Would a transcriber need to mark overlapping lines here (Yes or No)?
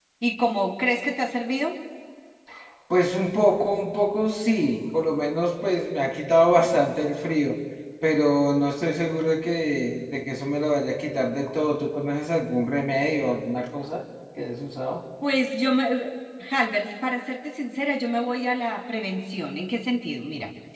No